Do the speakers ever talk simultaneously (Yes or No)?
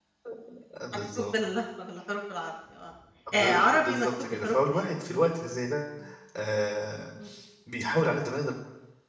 Yes